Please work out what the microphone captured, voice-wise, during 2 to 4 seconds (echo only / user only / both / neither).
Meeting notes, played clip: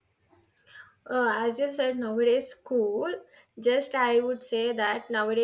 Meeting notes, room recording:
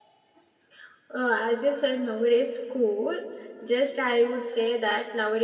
echo only